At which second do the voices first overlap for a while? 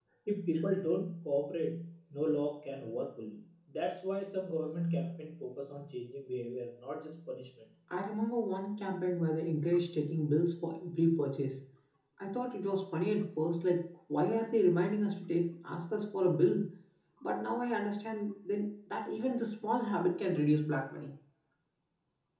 none

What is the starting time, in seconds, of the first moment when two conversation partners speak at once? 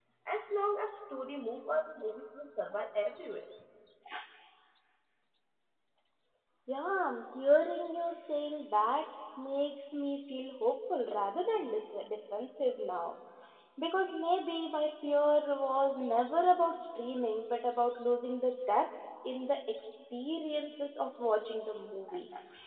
none

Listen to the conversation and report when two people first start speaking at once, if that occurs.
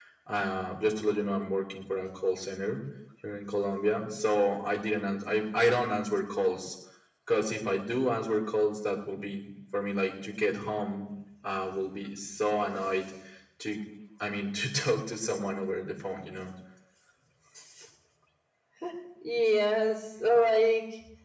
none

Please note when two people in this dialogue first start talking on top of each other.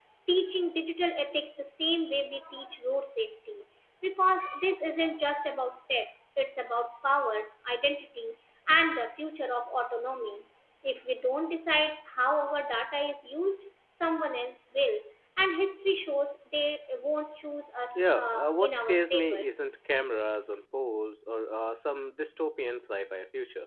17.9 s

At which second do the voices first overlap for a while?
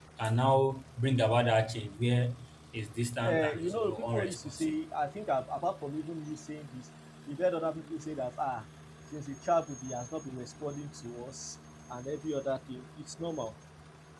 3.2 s

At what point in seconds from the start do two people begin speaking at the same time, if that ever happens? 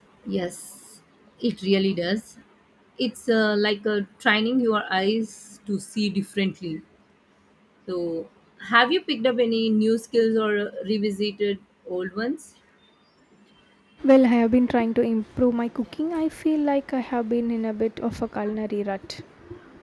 none

